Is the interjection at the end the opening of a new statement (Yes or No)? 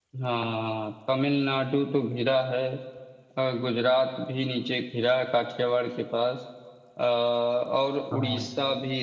No